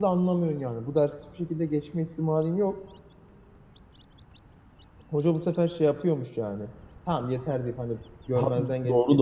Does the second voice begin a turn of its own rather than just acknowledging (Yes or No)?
Yes